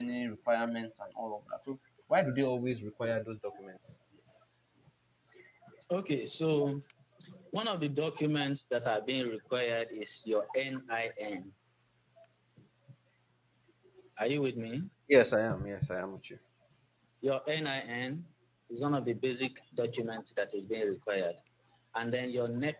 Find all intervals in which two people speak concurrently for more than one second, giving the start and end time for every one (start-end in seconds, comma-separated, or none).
none